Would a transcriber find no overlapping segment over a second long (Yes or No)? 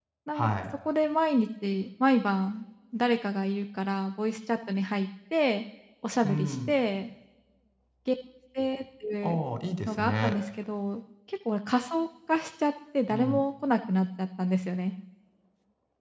Yes